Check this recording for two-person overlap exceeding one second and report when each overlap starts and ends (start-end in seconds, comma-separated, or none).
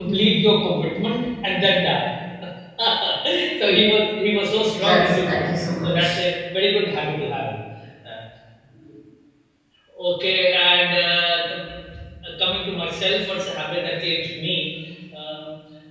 4.8-6.2